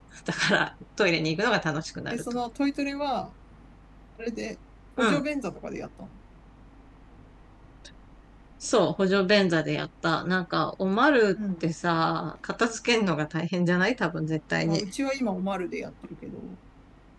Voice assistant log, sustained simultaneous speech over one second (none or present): none